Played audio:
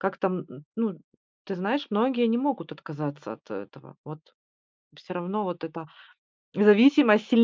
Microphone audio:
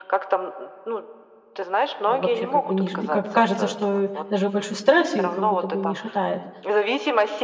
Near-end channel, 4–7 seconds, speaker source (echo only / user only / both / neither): both